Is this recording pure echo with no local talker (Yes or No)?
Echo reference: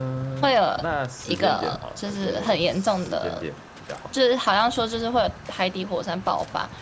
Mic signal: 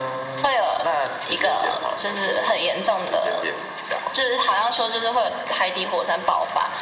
Yes